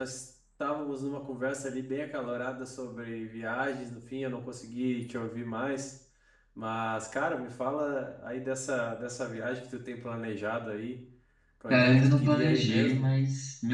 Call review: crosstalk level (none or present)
present